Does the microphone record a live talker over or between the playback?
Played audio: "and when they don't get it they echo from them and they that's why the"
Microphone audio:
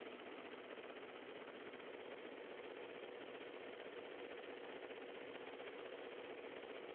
No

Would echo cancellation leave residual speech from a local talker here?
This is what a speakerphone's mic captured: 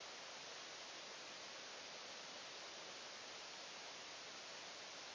No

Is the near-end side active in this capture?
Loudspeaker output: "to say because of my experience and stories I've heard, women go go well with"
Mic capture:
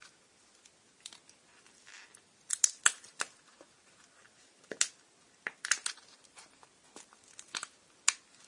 No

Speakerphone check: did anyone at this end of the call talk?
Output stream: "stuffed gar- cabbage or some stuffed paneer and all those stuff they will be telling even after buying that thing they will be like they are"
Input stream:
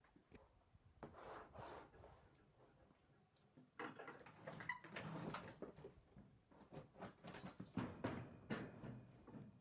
No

